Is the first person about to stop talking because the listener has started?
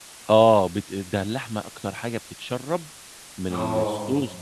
No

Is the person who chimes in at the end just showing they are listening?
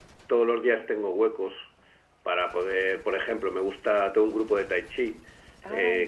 Yes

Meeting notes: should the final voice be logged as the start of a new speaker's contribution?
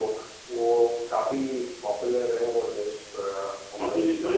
Yes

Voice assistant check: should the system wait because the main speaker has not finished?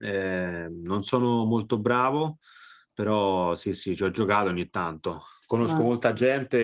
Yes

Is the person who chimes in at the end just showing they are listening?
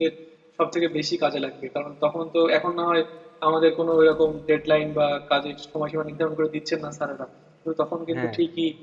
Yes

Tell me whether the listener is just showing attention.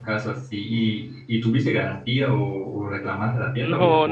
No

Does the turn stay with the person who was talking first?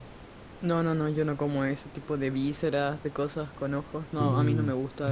Yes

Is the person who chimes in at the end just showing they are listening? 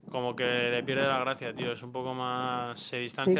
No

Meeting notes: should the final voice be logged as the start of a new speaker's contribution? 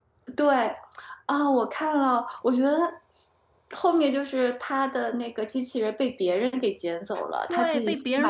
Yes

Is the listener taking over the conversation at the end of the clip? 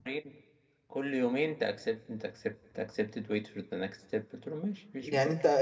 Yes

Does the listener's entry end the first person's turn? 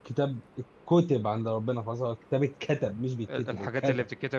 Yes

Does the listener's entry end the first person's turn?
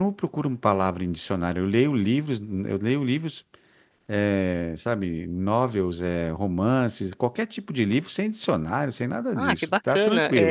Yes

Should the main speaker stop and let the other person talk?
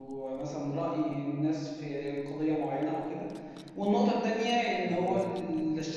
No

